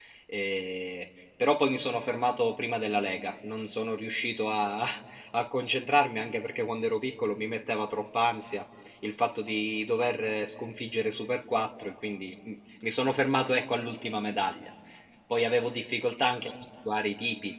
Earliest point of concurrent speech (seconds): none

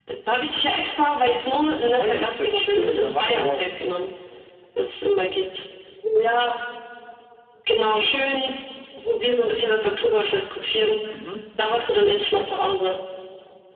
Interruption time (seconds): 1.7 s

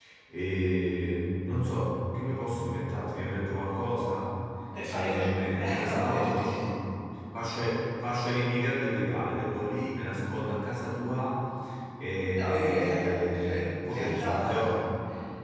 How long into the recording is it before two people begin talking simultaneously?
4.9 s

